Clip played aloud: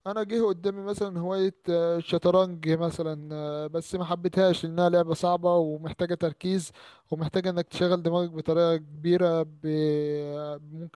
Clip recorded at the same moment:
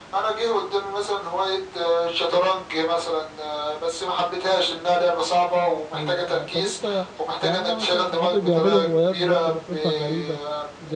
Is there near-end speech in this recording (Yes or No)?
Yes